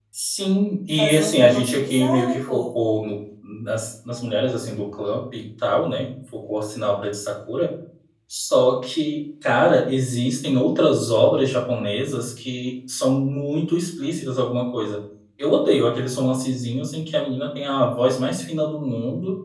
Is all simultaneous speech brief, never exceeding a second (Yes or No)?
No